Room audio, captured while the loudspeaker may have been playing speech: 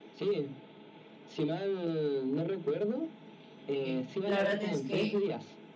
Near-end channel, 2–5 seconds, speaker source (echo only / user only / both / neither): both